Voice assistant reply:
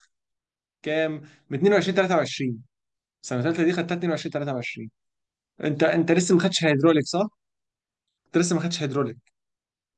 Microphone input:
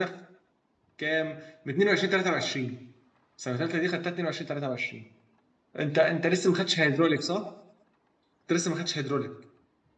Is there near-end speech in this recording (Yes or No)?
No